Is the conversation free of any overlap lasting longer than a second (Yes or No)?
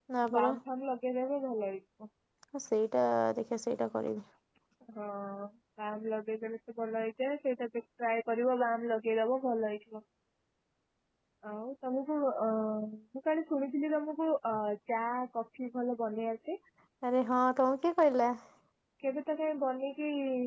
Yes